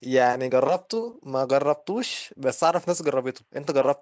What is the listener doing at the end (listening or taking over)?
taking over